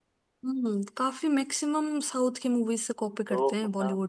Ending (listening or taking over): taking over